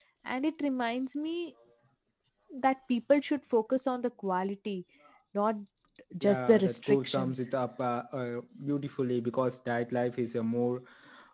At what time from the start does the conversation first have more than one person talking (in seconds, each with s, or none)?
6.2 s